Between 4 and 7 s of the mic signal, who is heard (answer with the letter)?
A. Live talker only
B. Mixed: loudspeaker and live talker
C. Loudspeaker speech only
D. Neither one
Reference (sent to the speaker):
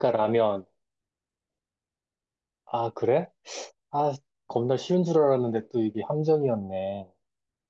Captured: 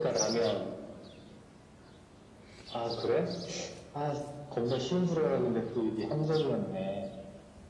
C